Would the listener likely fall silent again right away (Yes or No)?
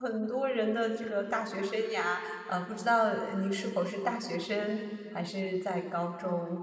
No